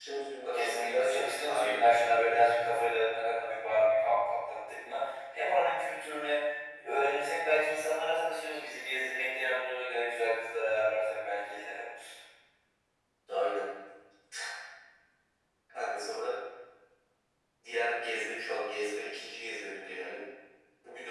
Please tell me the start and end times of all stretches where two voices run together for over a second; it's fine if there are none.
0.5-2.4

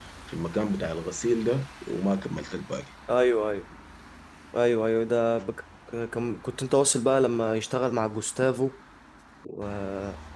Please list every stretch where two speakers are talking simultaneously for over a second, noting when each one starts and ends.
none

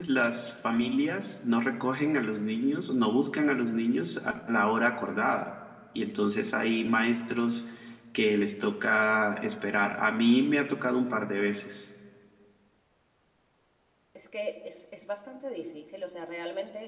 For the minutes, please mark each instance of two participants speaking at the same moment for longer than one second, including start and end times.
none

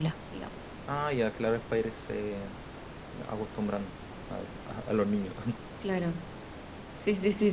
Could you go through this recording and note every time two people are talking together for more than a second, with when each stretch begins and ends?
none

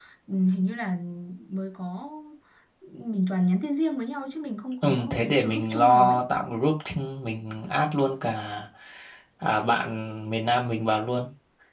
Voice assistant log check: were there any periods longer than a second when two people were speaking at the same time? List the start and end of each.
4.8-6.2

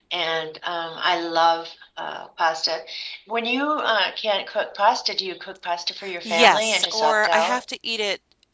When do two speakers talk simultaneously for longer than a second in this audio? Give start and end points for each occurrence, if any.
6.2-7.6

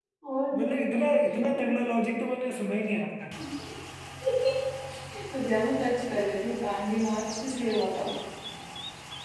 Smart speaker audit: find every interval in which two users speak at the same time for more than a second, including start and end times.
none

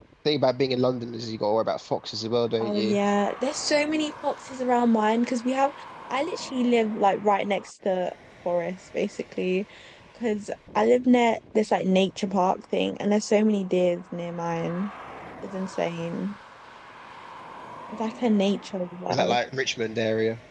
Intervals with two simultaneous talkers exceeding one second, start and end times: none

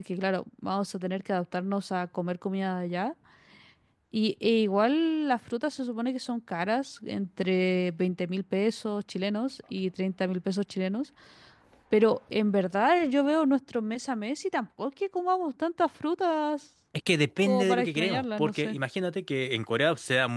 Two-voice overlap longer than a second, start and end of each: 17.4-18.8

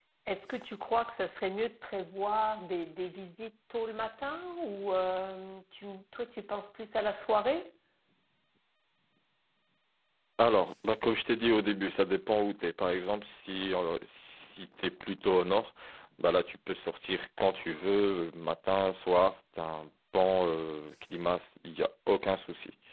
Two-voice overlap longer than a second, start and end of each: none

